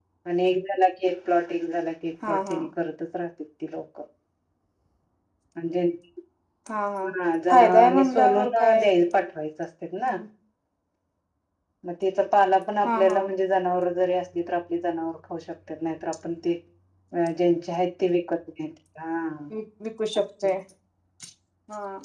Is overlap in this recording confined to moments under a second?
No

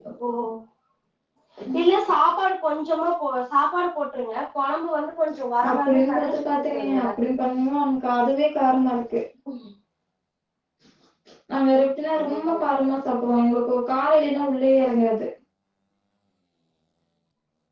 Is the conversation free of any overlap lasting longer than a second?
No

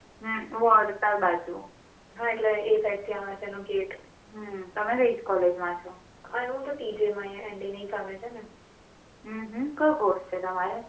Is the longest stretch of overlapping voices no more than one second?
Yes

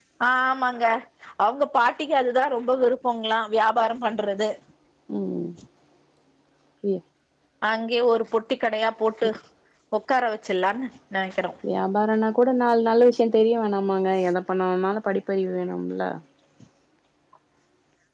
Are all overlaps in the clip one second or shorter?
Yes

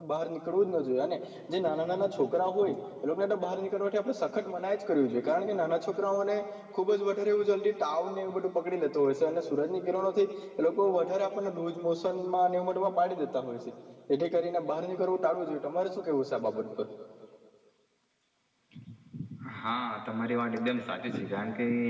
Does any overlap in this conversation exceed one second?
No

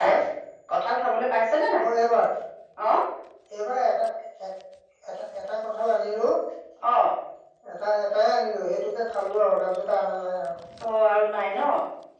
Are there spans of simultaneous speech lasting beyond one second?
No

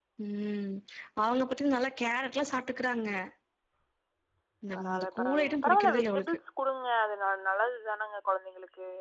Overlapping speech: Yes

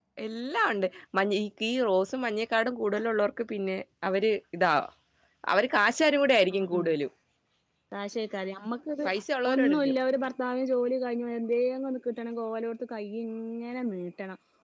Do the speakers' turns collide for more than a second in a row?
No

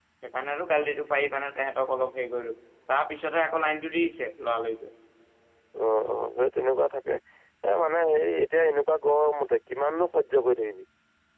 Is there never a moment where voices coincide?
Yes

